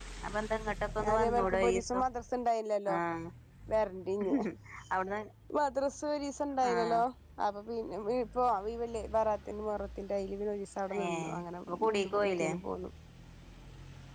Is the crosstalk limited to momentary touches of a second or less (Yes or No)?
No